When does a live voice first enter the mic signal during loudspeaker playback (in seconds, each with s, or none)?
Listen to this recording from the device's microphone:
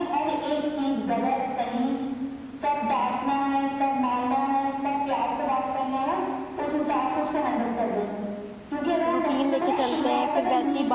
9.1 s